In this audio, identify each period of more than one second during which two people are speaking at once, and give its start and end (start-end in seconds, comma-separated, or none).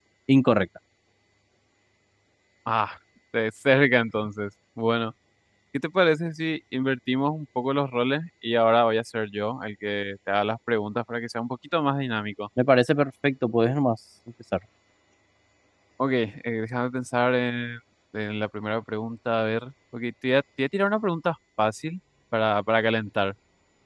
none